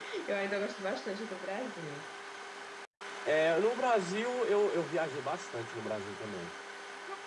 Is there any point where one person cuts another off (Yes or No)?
No